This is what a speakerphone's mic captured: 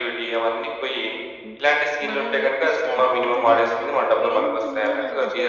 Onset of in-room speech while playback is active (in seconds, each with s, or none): 1.4 s